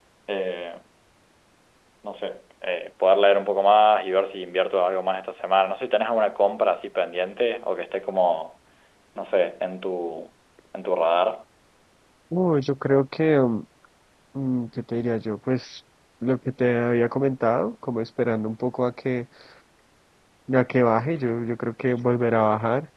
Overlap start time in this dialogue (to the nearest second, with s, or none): none